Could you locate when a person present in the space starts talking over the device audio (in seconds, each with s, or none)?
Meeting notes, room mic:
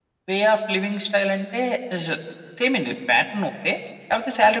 none